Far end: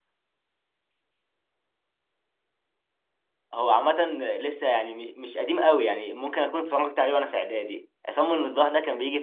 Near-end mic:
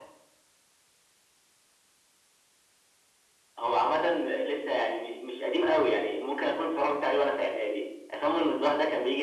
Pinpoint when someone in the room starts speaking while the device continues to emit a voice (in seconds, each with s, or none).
none